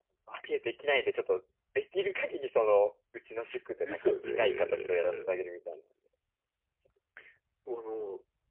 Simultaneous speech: Yes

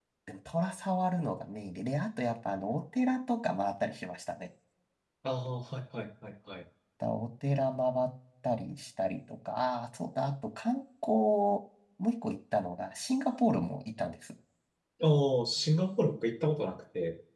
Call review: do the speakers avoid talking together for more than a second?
Yes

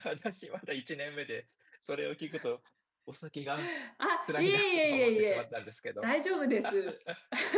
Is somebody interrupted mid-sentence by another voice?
Yes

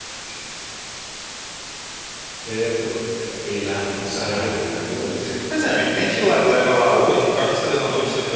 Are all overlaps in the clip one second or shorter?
No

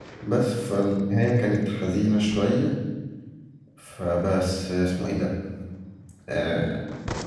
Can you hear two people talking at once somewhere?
No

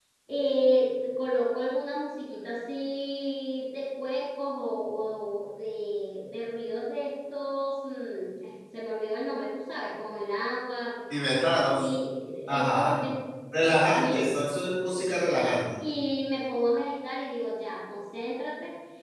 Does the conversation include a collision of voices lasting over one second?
No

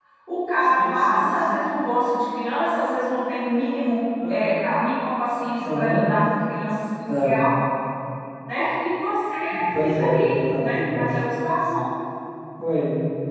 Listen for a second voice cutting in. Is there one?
Yes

